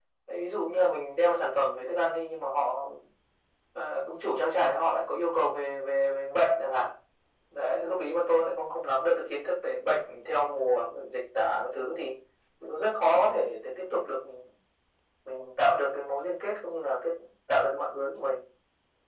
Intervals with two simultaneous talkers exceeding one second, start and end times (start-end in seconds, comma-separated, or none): none